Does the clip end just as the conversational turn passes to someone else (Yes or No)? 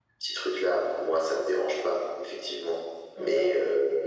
No